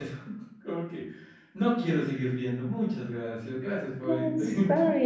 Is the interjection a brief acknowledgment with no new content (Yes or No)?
No